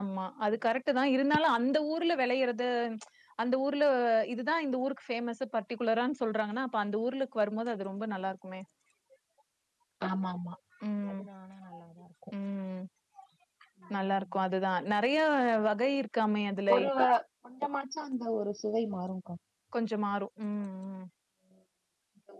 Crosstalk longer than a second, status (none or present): none